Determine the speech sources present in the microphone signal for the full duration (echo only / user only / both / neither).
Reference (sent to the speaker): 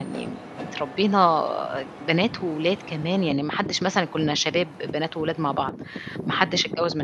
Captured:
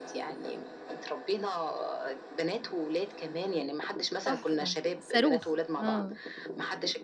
both